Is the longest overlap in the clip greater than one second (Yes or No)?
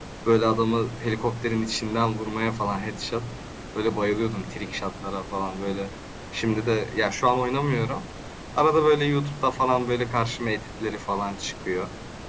No